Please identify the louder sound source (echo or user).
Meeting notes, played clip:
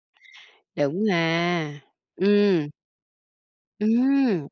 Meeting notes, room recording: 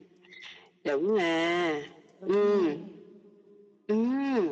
echo